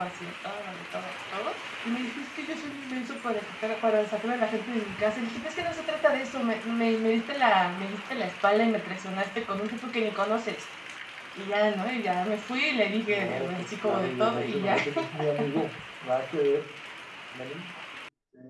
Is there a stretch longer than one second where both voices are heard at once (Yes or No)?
Yes